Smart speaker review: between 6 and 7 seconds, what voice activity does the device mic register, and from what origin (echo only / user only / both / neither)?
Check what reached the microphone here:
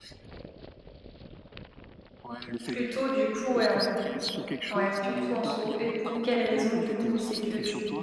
both